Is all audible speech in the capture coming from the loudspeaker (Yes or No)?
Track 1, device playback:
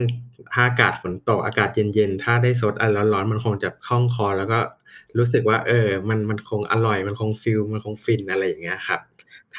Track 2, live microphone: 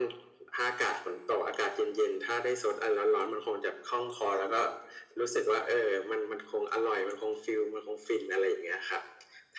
Yes